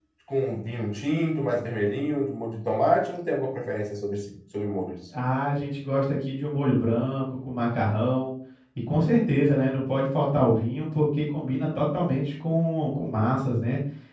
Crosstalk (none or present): none